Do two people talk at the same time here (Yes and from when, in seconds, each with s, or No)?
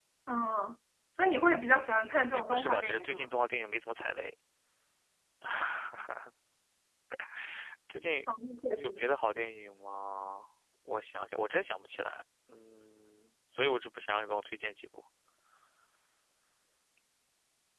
Yes, from 1.6 s